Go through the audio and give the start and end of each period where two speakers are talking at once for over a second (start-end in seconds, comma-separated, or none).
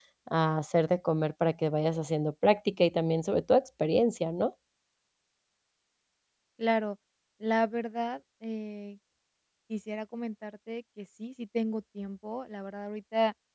none